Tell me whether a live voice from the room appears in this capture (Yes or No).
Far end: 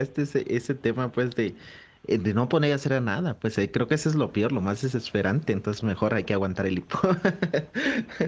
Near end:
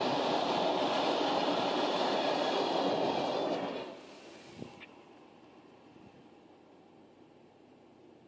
No